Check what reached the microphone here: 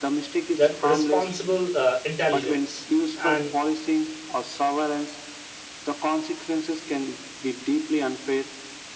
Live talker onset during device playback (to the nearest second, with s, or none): 1 s